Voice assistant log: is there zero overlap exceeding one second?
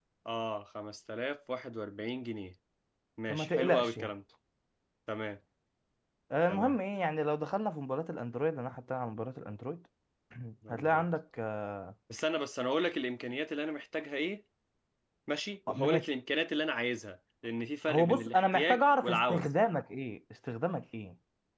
No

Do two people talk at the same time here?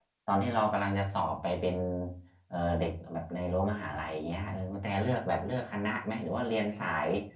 No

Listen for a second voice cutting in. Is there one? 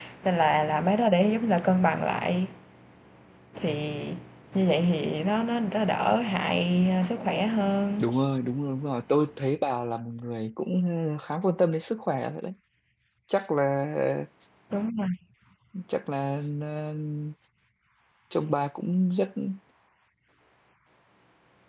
No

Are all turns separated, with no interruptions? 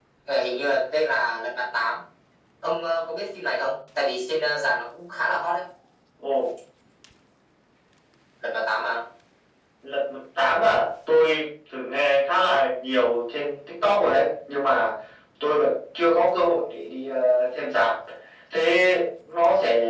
Yes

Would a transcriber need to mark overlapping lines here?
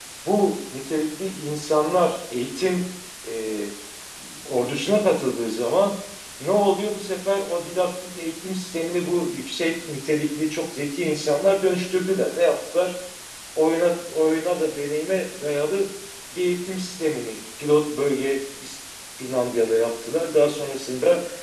No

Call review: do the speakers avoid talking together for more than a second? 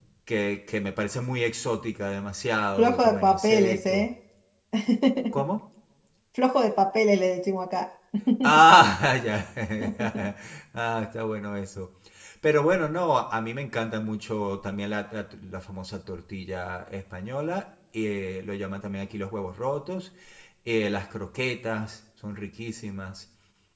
No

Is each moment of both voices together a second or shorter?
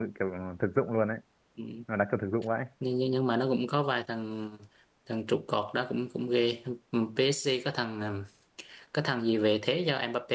Yes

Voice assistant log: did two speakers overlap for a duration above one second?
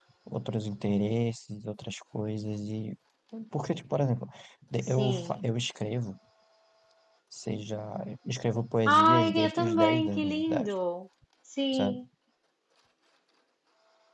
Yes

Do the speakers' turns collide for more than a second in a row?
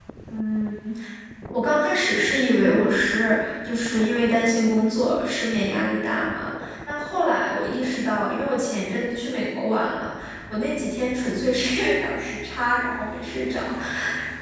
No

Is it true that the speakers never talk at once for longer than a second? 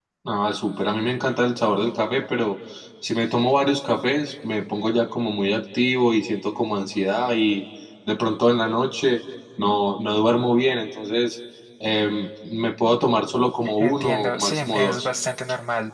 No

